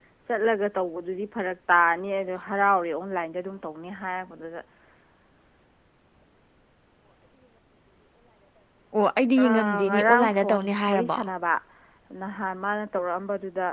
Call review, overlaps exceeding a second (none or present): present